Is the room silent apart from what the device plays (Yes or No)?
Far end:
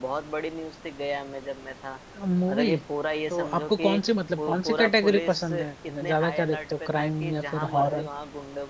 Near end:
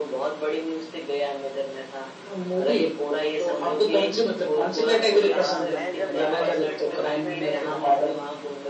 No